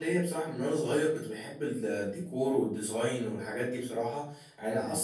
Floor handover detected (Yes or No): No